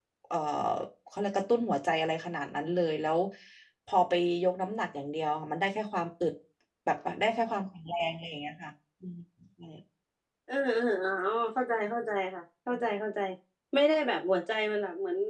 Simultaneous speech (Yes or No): No